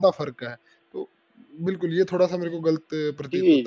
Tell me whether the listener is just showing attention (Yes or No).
No